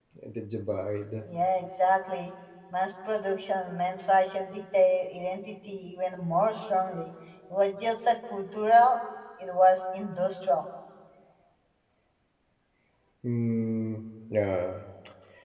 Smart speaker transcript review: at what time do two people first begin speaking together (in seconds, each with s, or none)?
none